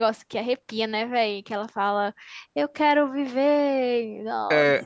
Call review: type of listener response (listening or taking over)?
taking over